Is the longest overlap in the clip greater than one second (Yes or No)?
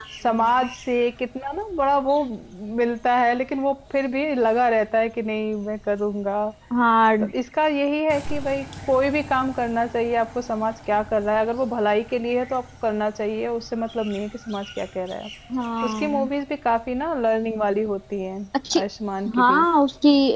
No